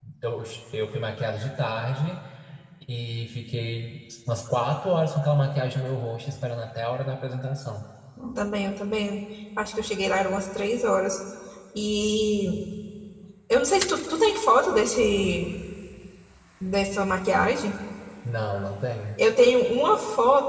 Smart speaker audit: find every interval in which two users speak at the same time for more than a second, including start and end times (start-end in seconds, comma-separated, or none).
none